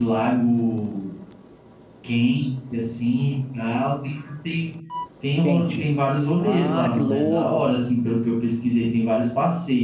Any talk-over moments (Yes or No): Yes